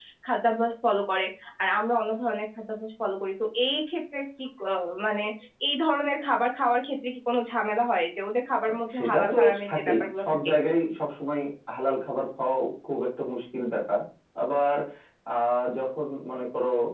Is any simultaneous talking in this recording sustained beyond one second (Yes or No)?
Yes